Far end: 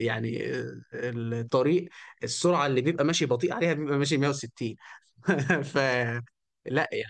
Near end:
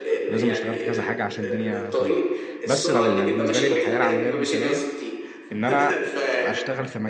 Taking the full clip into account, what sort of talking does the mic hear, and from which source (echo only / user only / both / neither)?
both